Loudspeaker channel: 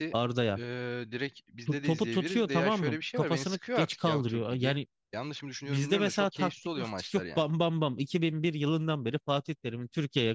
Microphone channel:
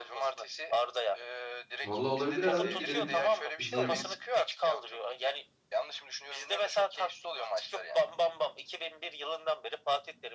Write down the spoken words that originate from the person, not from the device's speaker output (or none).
Vallahi olabilir abi gidelim izleyelim.